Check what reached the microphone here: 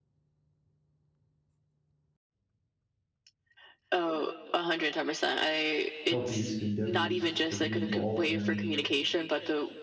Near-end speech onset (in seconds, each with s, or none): 6.1 s